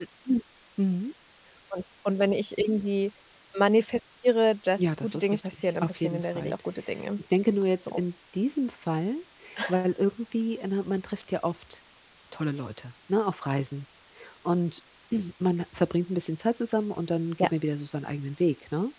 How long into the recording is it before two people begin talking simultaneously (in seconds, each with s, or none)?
4.8 s